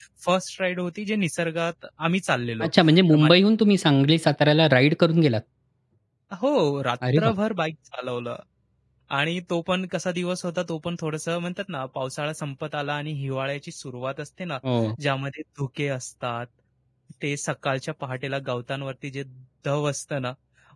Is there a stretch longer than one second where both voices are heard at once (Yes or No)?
No